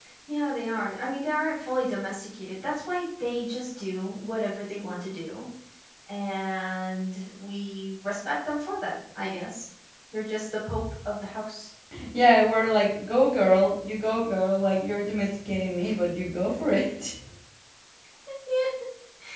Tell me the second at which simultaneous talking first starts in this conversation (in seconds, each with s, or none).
none